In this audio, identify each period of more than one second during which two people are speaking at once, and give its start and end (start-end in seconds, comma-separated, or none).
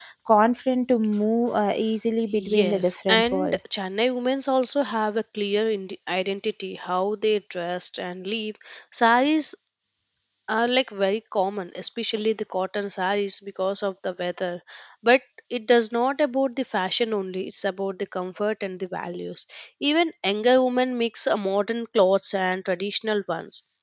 2.4-3.6